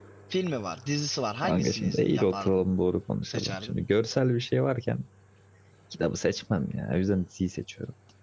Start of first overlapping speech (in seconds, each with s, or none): 1.4 s